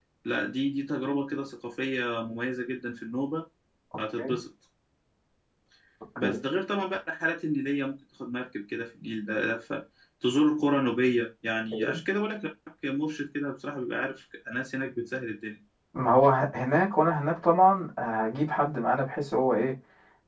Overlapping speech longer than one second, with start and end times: none

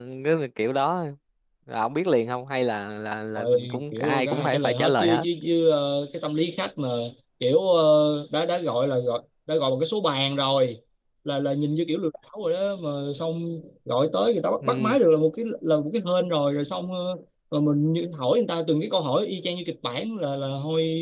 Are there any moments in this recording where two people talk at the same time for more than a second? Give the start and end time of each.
3.4-5.2

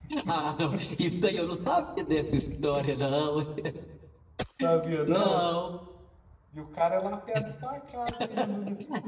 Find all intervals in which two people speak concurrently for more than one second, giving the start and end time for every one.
none

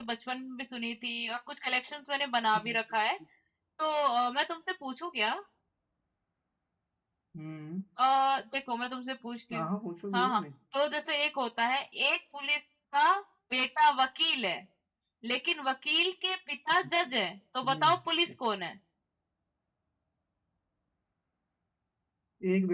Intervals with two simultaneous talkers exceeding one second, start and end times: none

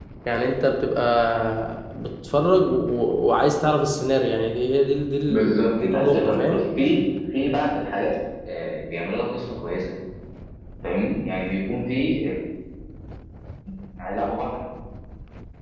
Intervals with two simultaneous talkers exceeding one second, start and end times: 5.3-6.6

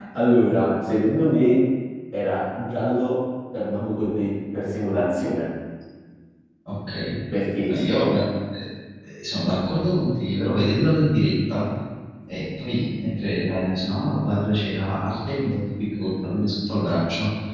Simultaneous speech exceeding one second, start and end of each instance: none

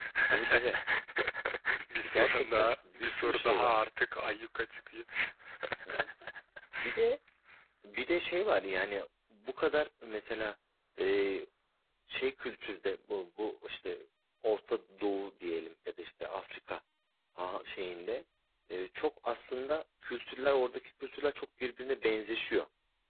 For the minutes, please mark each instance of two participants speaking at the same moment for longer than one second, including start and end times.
2.1-3.7

